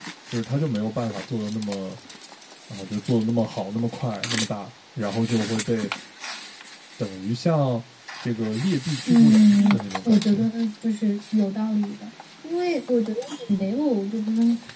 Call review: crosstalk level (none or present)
present